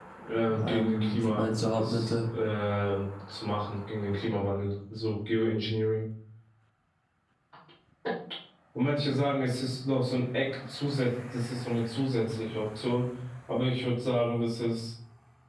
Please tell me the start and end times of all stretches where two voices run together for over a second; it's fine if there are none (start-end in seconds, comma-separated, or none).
0.6-2.2